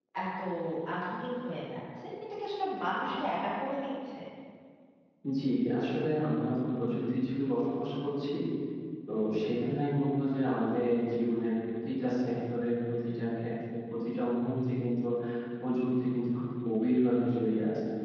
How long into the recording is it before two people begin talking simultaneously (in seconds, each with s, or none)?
none